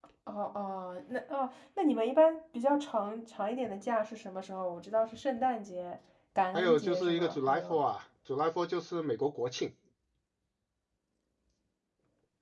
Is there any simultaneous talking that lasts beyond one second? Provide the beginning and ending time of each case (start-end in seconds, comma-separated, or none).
6.5-7.8